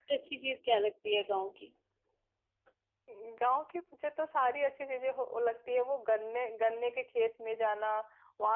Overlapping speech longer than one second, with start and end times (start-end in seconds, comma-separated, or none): none